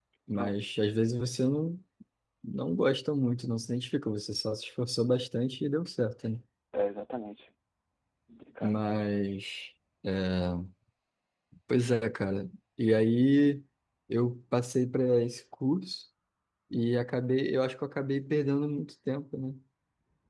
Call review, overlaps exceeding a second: none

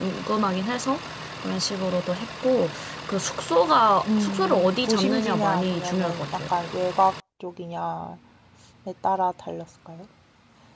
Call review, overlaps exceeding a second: present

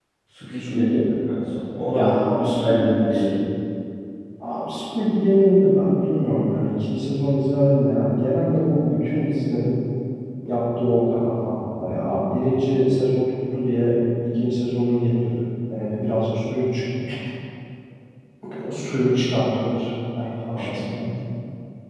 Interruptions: present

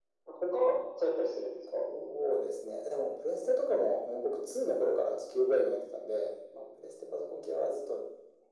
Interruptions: none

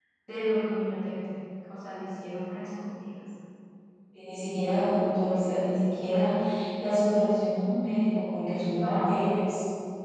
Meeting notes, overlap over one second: none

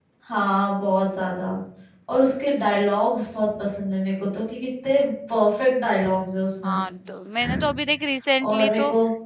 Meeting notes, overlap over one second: none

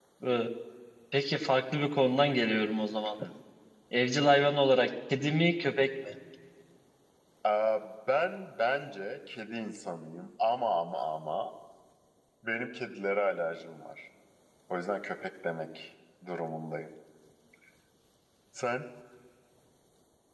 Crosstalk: none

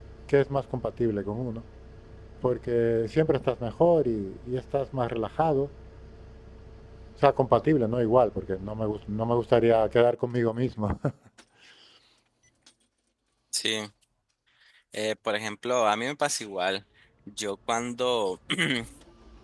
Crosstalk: none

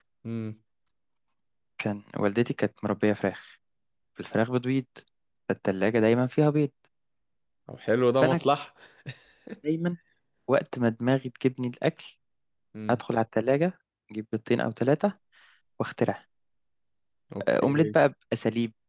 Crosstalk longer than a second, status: none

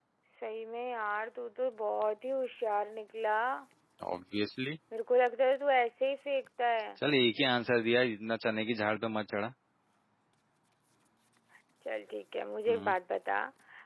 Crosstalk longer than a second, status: none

